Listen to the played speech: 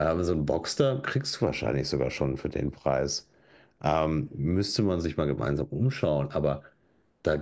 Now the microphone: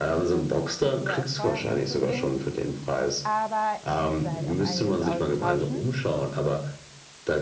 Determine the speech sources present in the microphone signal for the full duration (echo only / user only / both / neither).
both